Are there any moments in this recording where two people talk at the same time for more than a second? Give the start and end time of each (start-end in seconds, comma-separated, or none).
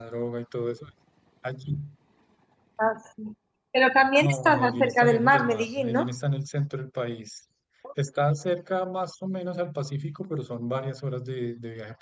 4.2-6.1